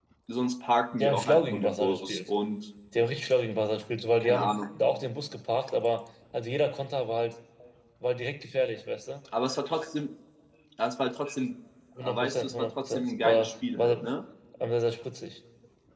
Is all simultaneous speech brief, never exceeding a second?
No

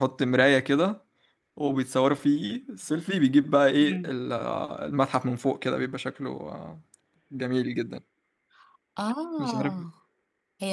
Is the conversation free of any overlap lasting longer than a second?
Yes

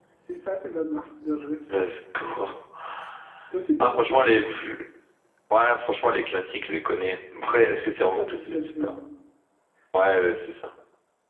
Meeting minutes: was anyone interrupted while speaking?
Yes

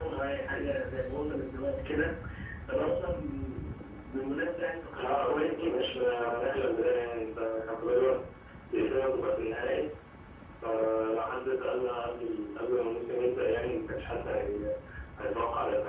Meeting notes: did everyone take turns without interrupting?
No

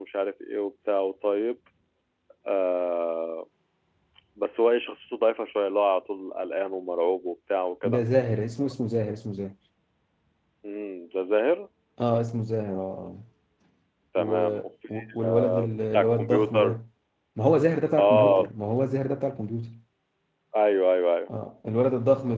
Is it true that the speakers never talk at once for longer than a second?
No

